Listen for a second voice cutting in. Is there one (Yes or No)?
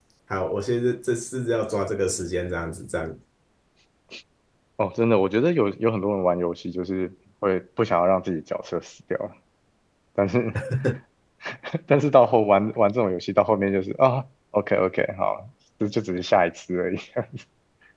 No